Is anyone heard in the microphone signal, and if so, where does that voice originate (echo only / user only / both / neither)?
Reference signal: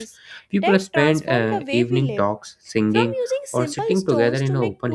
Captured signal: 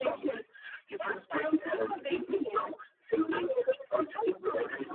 echo only